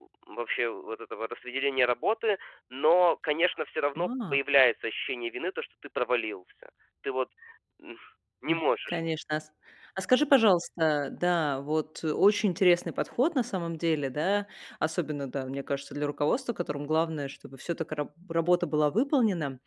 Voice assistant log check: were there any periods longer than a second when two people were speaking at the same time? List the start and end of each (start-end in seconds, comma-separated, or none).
none